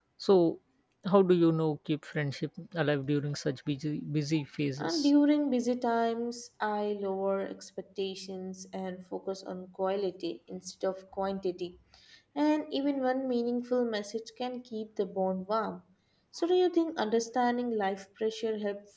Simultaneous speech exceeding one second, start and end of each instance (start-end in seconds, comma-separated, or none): none